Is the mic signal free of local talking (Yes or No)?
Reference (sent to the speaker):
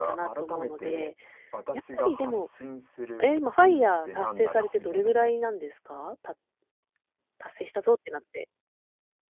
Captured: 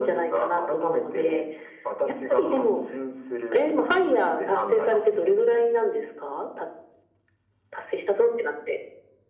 Yes